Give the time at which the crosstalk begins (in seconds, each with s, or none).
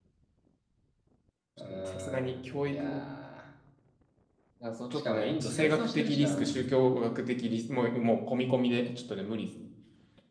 1.7 s